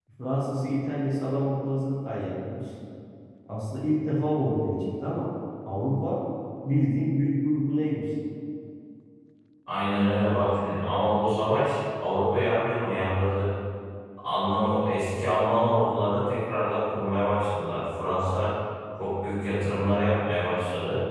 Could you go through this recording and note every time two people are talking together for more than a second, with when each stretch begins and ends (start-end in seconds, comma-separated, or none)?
none